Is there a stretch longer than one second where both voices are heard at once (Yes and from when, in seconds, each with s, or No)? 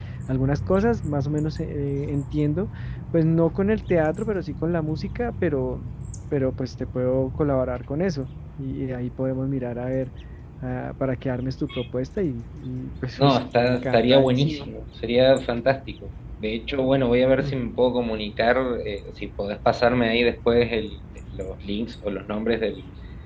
Yes, from 13.2 s